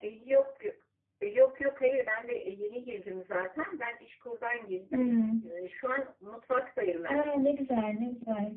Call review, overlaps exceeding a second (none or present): none